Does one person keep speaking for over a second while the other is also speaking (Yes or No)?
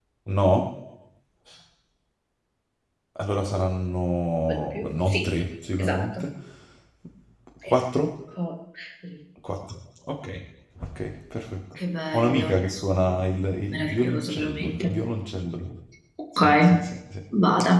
Yes